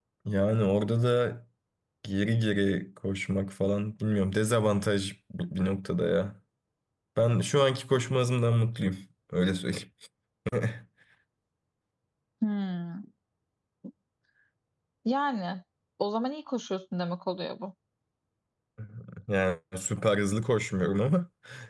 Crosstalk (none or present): none